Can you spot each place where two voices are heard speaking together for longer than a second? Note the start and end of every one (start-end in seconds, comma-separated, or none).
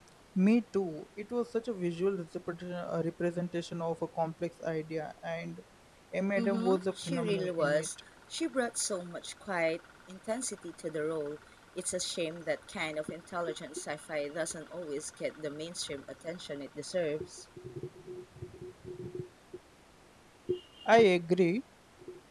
6.4-7.9